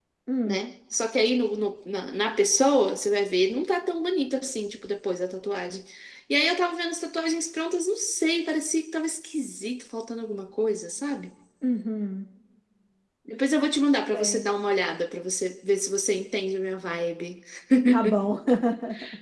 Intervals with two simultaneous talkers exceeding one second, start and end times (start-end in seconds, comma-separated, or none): none